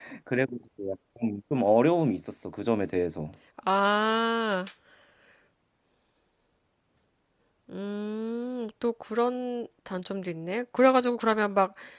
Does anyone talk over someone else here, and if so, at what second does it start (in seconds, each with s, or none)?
none